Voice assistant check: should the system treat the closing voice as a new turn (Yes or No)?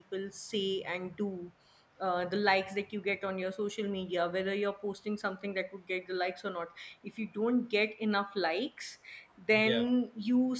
No